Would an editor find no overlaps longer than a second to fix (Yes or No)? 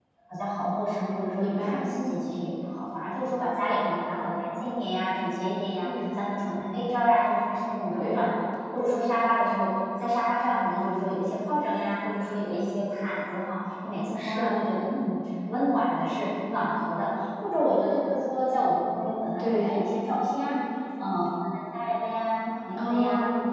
Yes